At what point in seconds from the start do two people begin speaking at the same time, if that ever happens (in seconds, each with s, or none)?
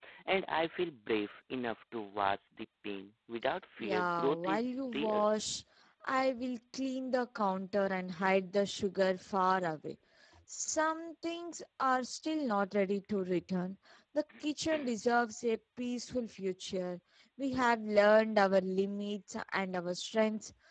3.8 s